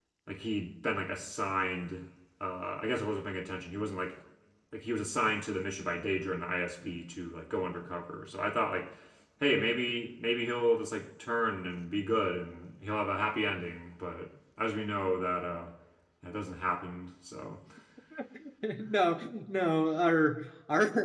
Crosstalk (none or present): none